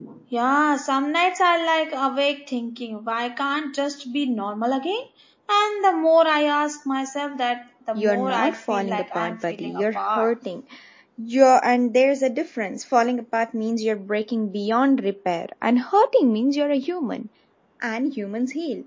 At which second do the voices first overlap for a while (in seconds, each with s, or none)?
8.0 s